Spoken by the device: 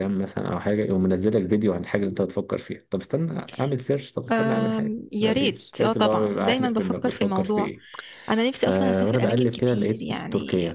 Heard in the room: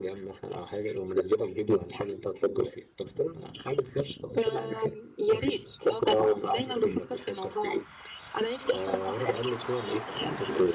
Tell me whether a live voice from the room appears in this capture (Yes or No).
No